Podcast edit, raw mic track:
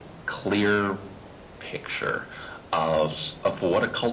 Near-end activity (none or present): none